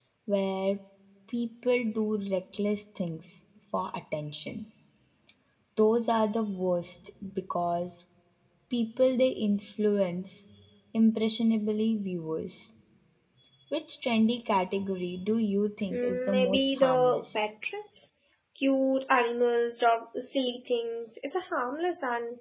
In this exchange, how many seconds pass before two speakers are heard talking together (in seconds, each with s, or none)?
15.9 s